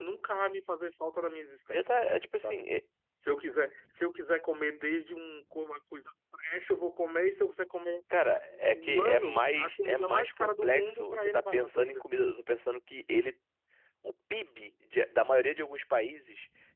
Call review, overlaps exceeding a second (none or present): present